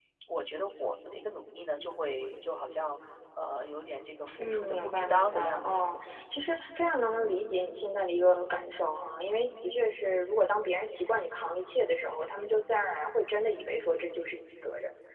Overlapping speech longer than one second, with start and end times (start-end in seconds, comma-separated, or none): 4.4-5.9